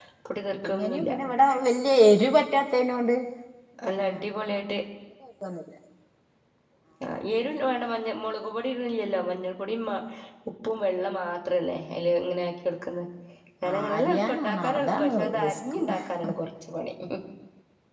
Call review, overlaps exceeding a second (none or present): present